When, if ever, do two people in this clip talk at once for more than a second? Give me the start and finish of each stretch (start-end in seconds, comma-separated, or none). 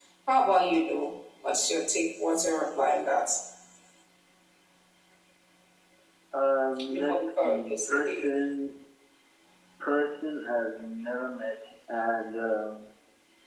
6.9-8.3